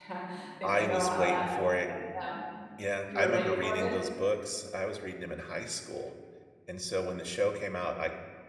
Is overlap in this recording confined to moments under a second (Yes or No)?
No